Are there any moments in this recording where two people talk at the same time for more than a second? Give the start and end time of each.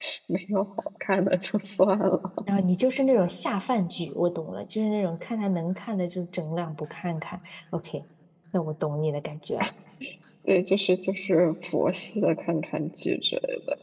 none

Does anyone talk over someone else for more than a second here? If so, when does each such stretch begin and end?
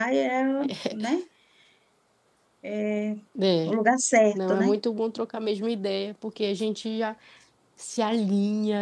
none

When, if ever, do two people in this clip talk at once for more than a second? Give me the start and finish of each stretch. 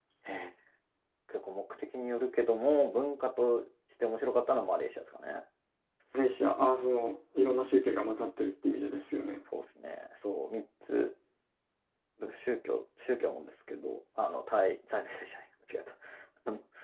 none

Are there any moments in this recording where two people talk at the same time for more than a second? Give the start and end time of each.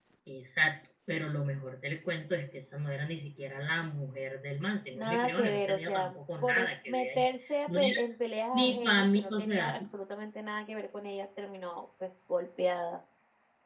4.9-7.2, 8.5-9.7

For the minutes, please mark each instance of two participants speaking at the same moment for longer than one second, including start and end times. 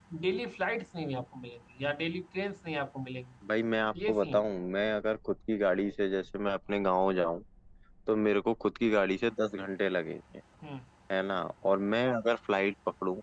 none

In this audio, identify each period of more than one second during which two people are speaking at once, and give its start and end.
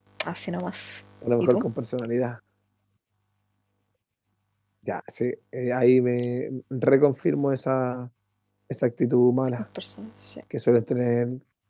none

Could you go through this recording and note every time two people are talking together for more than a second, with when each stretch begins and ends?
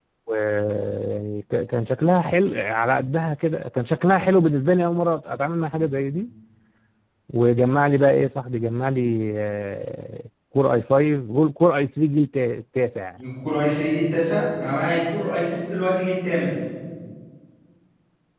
none

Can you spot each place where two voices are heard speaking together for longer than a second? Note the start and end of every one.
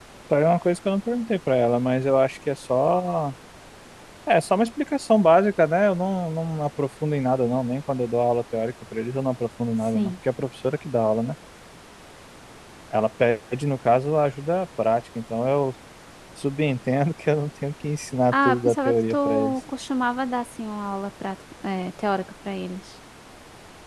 18.3-19.5

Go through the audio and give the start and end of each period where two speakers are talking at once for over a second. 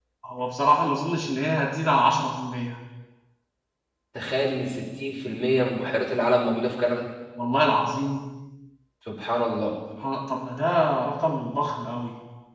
none

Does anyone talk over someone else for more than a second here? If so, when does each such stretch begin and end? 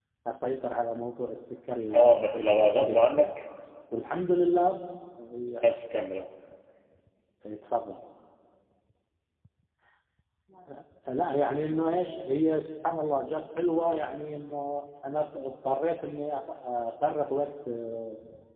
1.9-3.3

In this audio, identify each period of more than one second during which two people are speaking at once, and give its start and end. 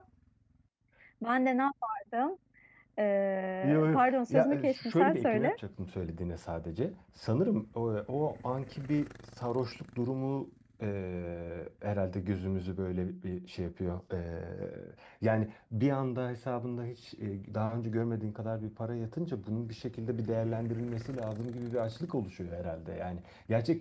3.6-5.6

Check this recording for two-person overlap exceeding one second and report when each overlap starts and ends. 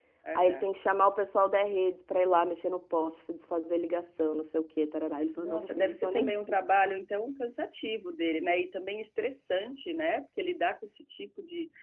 5.3-6.5

